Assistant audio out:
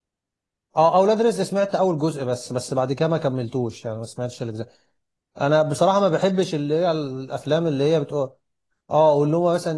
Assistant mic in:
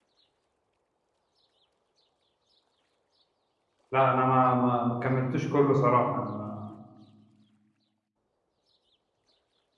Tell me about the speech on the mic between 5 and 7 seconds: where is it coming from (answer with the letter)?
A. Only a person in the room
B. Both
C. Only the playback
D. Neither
A